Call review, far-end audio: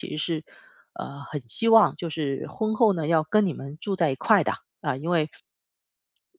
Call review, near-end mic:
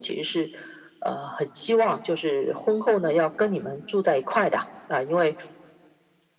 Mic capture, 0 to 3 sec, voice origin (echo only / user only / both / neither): echo only